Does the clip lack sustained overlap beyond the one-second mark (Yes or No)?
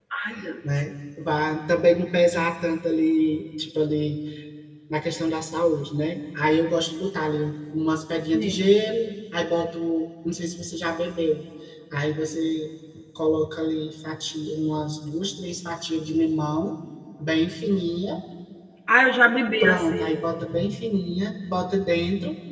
Yes